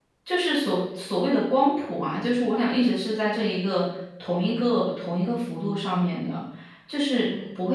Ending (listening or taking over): listening